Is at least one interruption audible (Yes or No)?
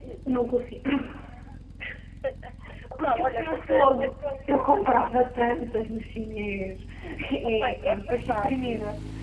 Yes